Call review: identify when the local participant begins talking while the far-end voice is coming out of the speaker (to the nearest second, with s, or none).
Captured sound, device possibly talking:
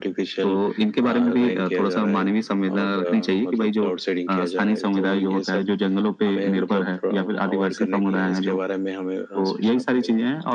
none